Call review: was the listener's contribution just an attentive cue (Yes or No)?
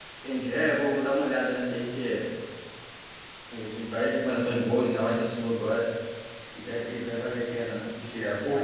Yes